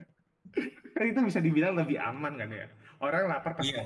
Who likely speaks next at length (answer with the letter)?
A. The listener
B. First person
B